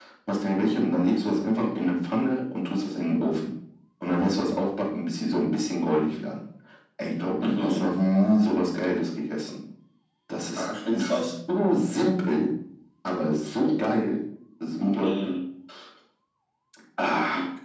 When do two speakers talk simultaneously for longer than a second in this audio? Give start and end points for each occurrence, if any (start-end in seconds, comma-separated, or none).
none